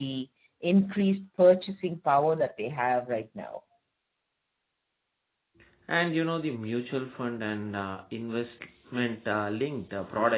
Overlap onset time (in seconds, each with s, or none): none